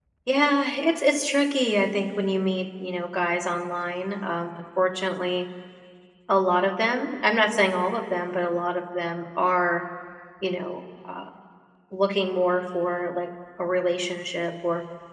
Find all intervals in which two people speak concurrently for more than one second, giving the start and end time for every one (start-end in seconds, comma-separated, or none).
none